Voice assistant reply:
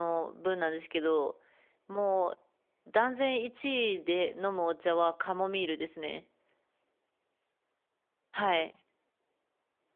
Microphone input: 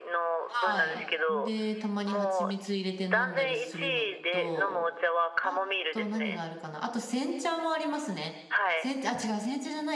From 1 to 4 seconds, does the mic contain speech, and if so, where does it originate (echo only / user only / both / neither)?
both